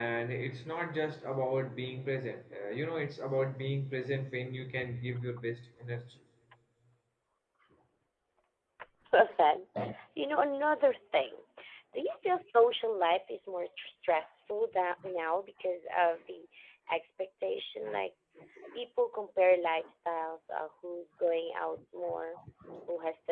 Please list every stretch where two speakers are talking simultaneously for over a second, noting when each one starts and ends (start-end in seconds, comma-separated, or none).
none